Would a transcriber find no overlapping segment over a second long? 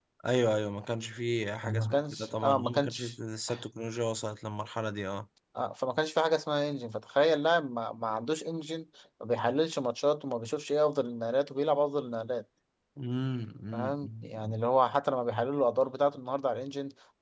No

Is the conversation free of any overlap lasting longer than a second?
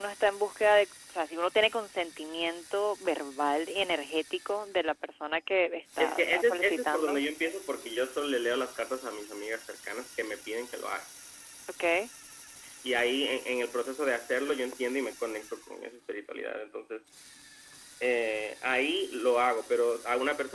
No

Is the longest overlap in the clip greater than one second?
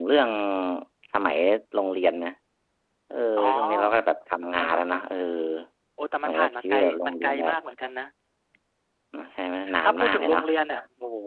Yes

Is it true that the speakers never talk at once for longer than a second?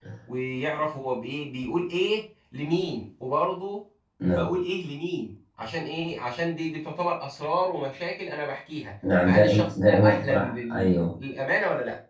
No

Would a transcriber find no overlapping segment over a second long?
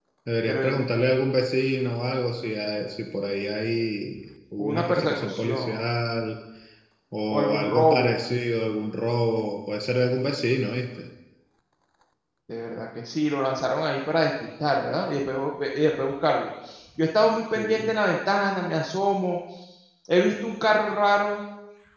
No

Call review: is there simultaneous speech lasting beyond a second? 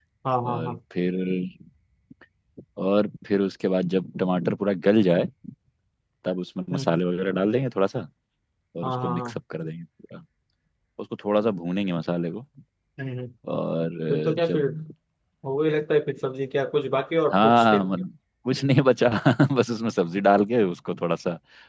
No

